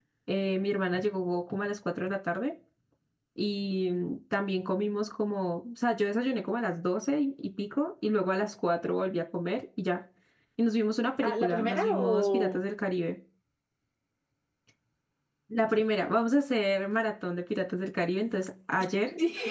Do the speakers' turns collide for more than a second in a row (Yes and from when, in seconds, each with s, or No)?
Yes, from 11.2 s